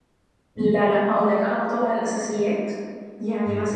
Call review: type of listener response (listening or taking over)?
listening